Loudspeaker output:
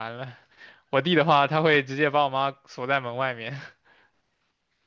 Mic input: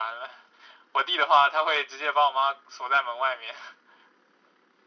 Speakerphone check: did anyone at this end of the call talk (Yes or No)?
No